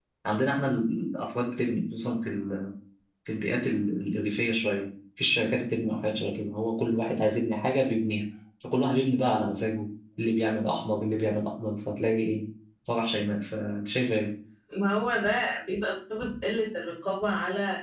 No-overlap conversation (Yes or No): Yes